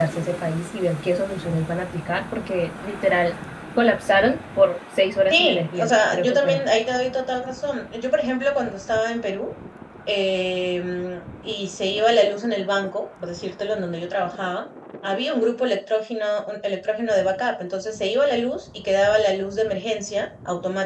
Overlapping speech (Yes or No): Yes